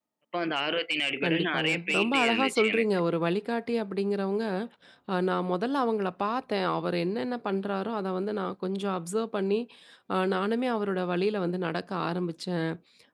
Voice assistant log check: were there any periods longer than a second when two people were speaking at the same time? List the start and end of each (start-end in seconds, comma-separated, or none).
1.2-2.9